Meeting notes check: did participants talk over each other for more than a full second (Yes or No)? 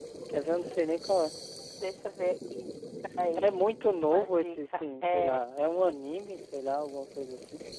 Yes